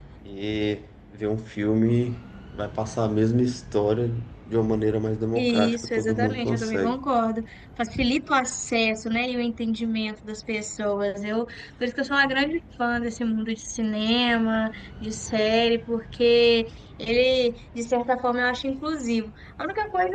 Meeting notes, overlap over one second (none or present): present